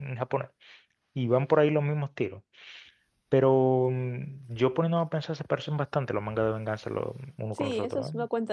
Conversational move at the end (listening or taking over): taking over